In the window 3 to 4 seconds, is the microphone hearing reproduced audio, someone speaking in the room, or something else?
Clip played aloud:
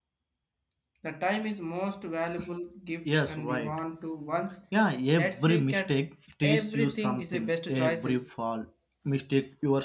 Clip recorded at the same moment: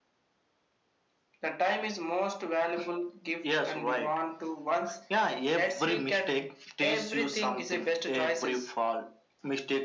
echo only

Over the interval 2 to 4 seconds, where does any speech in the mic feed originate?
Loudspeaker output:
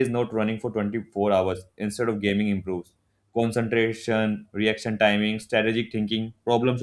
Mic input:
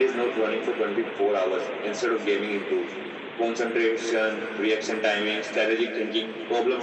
echo only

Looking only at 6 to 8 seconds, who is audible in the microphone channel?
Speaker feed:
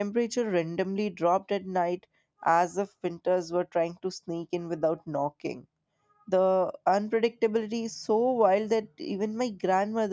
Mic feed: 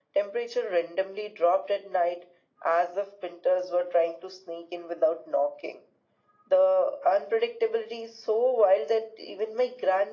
echo only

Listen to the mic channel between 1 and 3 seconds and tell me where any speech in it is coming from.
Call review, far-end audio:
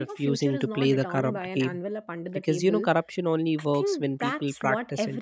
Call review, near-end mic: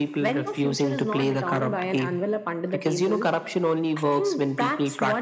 echo only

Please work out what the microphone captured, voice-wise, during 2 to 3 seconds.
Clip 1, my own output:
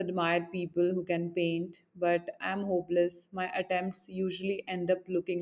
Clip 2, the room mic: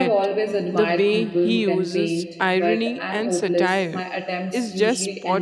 both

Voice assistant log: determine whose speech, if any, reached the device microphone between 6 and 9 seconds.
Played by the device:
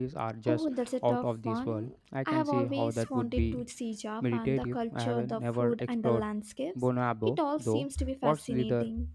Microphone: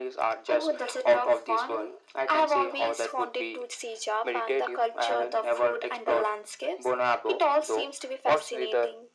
echo only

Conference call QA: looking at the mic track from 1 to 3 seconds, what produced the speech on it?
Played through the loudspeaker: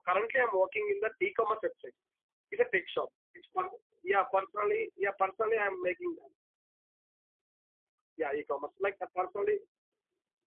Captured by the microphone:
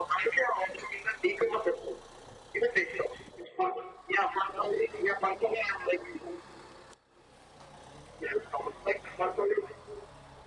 echo only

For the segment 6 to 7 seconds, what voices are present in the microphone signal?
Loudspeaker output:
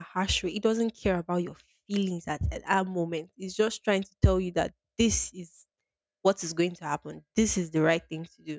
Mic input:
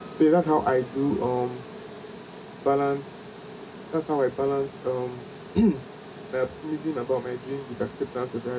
user only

